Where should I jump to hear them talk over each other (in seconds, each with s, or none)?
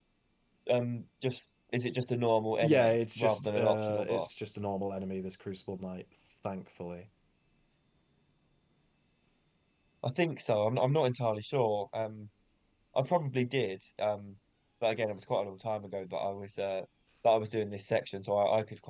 2.6 s